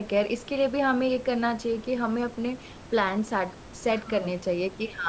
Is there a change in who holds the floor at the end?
No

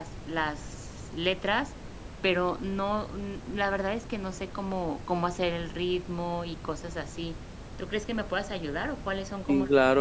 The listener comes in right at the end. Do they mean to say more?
Yes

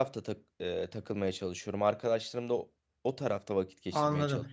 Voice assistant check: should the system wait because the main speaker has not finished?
No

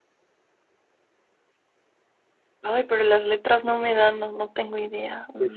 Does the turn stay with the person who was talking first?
No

